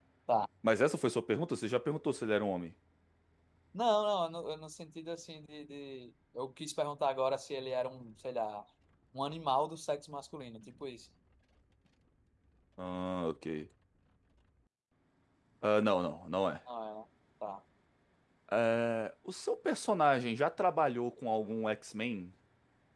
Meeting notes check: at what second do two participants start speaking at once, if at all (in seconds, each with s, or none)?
none